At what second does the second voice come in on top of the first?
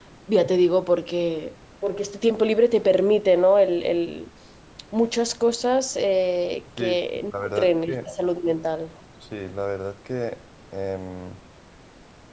6.8 s

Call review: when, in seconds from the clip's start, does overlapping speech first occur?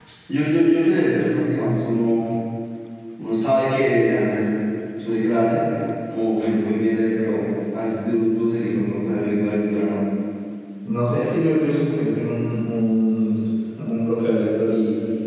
none

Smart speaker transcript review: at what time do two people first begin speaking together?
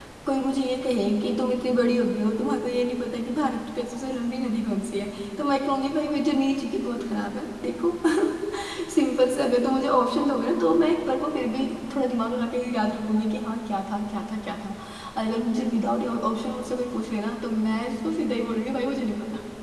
none

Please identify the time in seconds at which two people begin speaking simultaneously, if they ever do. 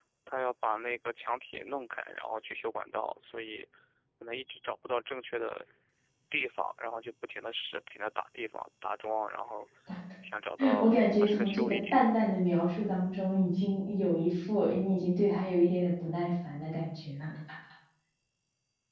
10.8 s

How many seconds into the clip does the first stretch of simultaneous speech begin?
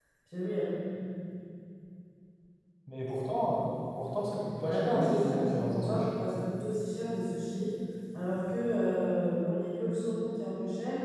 4.6 s

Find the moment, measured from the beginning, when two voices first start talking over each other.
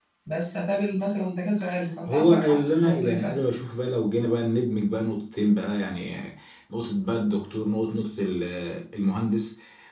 2.1 s

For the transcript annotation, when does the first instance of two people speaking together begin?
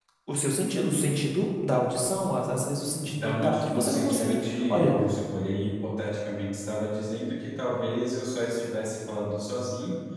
3.0 s

